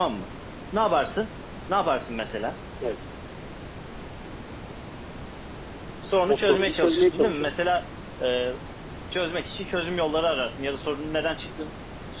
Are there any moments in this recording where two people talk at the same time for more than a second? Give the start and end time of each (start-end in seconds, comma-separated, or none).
6.3-7.5